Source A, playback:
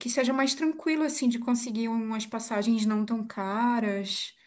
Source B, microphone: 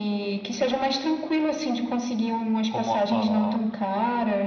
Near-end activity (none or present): present